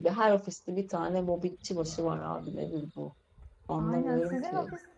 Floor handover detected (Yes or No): Yes